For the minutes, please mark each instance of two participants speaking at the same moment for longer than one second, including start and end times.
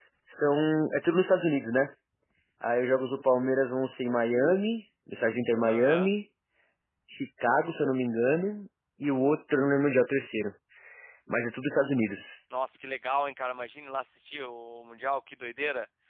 none

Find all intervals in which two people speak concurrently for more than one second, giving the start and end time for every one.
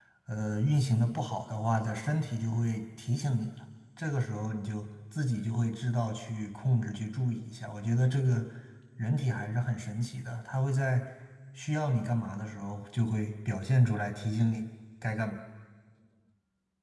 none

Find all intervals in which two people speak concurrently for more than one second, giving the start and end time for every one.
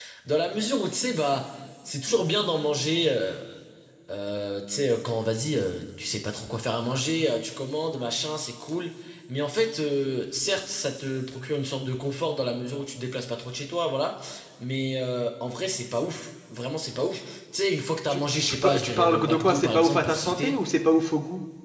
18.1-20.5

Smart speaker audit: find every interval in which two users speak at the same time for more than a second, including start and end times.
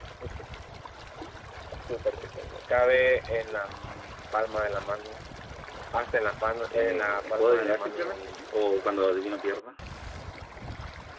6.7-8.3

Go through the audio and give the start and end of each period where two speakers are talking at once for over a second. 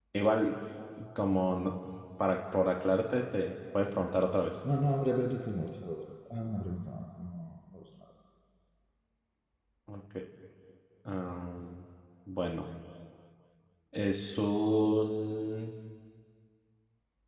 none

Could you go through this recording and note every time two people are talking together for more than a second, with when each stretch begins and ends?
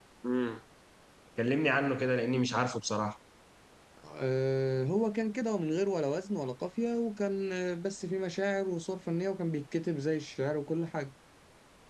none

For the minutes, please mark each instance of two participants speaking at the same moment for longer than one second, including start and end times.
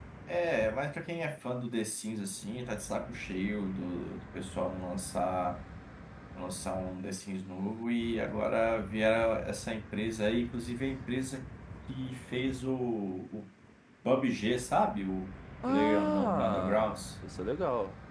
15.7-17.1

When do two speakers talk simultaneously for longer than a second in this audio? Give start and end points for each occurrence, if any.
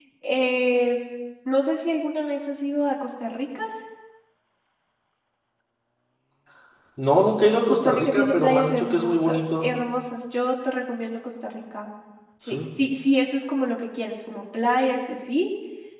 7.7-9.7

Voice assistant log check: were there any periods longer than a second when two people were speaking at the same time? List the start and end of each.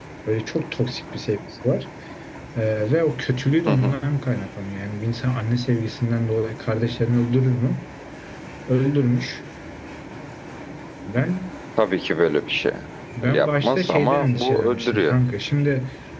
13.3-15.2

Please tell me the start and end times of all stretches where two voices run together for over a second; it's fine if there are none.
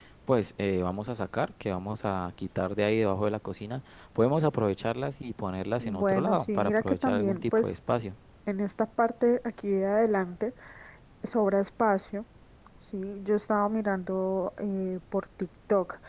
5.8-7.8

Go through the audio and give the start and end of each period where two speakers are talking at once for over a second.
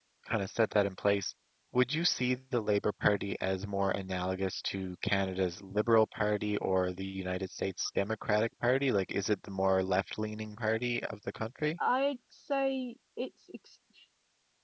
none

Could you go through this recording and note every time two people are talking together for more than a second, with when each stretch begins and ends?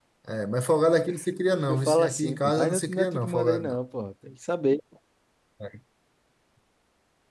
1.7-3.7

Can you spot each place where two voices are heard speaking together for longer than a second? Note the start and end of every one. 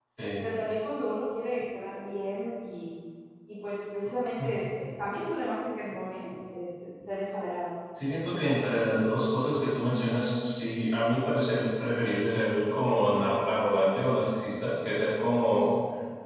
none

